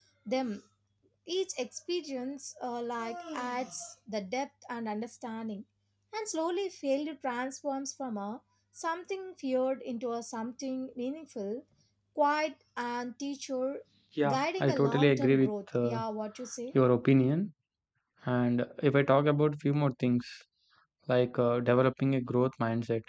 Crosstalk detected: Yes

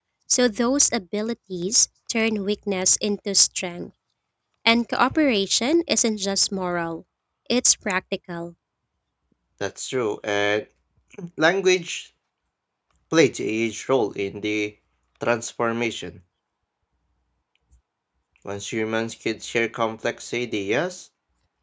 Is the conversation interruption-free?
Yes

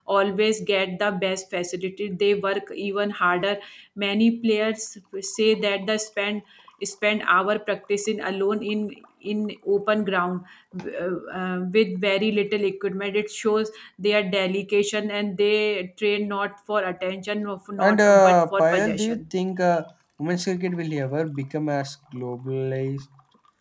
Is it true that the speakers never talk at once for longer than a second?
No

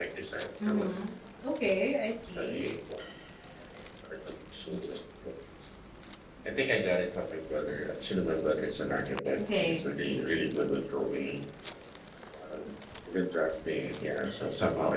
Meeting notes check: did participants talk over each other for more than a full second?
No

